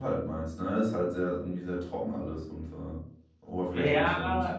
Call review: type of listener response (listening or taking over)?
taking over